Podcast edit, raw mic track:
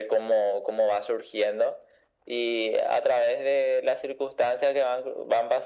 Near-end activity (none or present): none